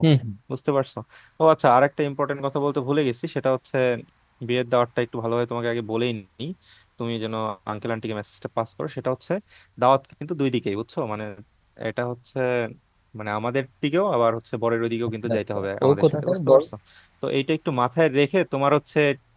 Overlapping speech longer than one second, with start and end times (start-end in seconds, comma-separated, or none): 15.2-16.6